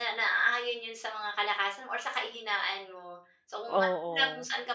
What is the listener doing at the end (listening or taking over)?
listening